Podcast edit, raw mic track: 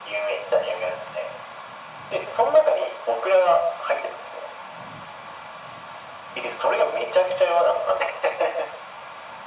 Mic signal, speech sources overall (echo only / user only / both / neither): echo only